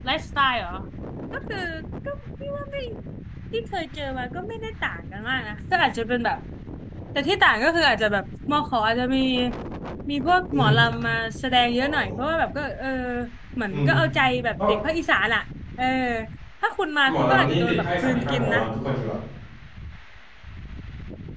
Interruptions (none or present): present